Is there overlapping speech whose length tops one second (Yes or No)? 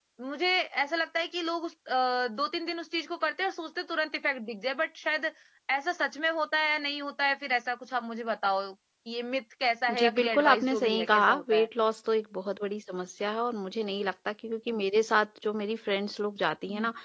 Yes